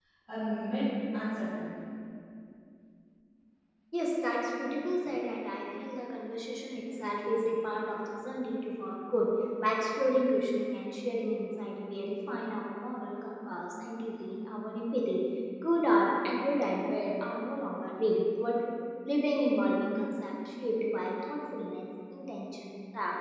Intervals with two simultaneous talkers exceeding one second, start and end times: none

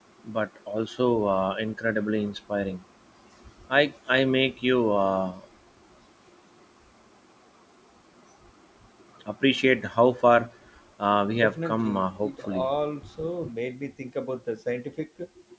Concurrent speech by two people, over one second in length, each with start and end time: 11.4-12.7

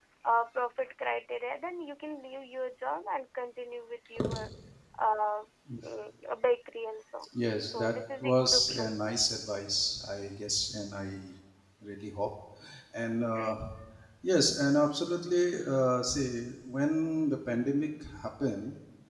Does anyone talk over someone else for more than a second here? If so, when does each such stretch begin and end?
7.7-9.0

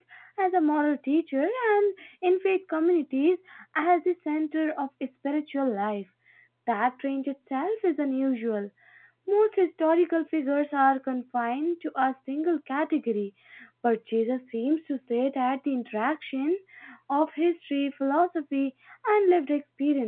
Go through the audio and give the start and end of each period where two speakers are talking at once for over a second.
none

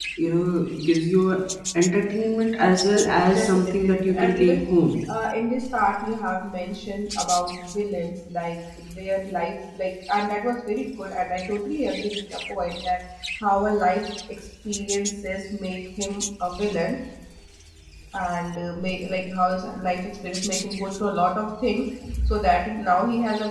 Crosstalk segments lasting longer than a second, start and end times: 3.0-4.6

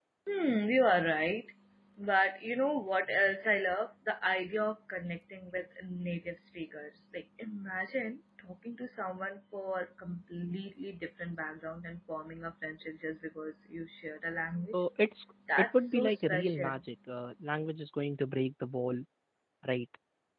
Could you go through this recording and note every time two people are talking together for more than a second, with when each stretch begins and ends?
15.6-16.8

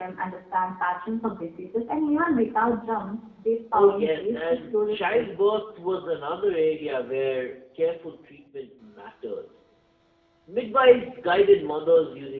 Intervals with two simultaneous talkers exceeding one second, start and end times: 3.7-5.3

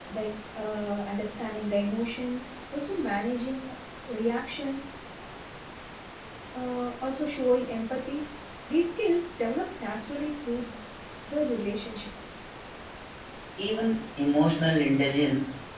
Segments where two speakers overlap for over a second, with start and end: none

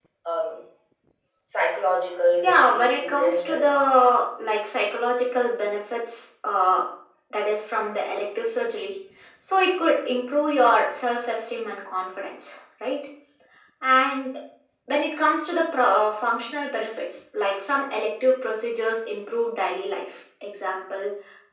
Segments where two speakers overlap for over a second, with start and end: 2.4-3.8

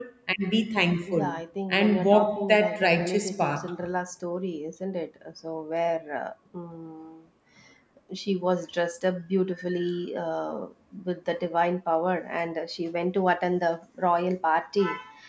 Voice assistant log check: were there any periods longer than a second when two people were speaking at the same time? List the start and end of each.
1.7-3.7

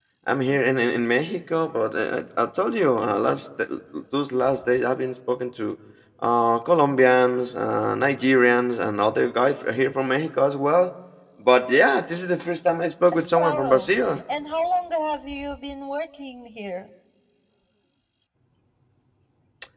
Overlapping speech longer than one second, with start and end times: none

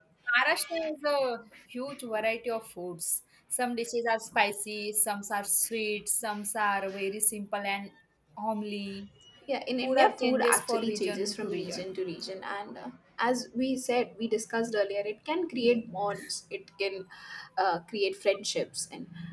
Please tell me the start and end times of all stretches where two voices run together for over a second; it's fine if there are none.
9.8-11.8

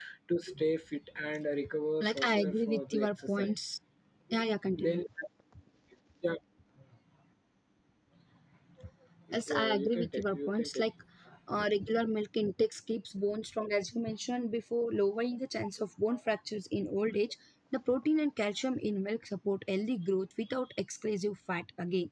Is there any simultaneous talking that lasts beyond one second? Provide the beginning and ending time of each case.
2.0-3.5, 9.5-10.8

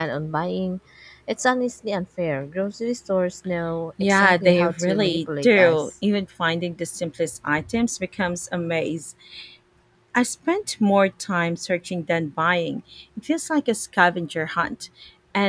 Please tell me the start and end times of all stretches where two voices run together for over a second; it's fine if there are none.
4.0-5.9

